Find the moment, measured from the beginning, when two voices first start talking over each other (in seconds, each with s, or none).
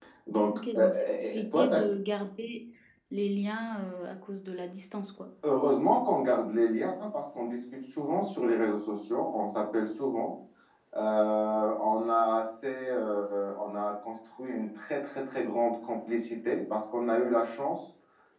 0.5 s